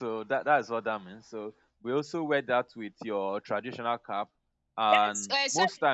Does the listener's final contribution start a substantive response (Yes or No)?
Yes